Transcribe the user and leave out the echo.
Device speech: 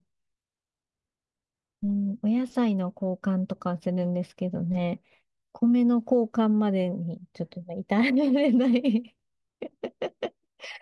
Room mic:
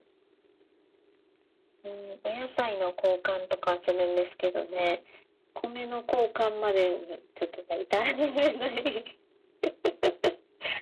none

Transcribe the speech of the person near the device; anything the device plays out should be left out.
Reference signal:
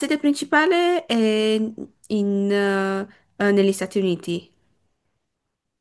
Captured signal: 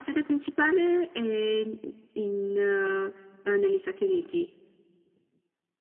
none

